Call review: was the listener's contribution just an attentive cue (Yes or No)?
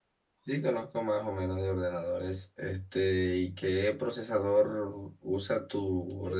No